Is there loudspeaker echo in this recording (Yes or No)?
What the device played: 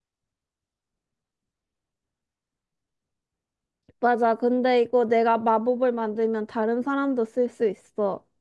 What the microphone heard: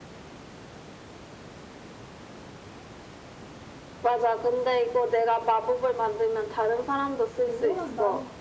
Yes